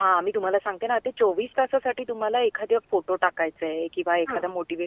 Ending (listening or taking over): listening